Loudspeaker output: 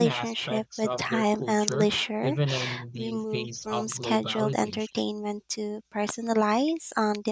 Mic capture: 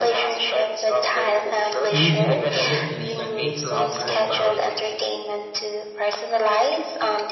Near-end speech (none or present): present